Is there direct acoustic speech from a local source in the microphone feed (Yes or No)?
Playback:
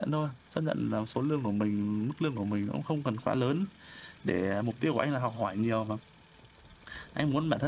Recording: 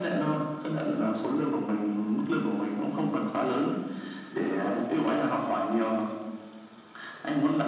No